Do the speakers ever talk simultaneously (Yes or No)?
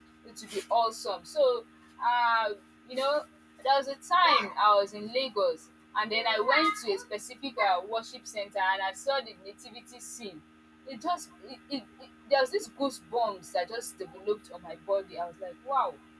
No